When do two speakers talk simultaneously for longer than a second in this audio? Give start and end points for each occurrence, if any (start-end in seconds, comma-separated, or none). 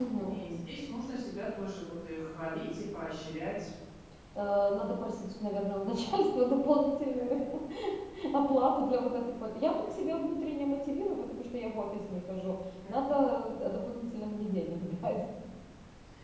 none